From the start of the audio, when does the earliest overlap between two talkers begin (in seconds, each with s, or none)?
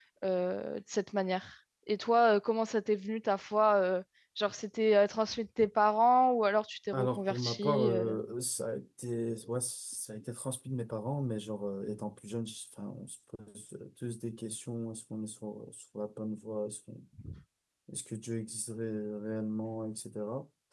6.9 s